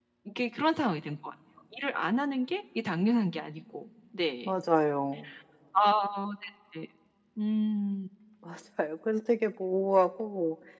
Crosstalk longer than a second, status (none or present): none